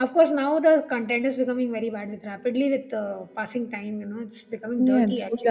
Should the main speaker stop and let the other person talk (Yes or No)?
Yes